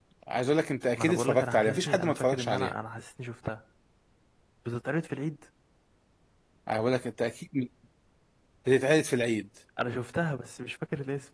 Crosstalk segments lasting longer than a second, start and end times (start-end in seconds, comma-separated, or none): 0.9-2.7